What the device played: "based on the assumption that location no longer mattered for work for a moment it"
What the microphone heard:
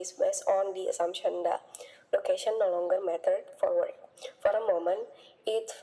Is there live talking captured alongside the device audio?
No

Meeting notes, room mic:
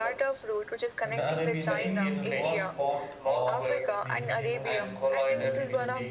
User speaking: Yes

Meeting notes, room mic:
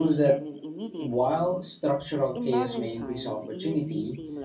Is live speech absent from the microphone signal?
No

